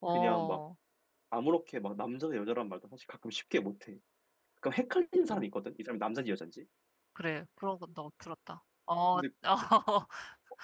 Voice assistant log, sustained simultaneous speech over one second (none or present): none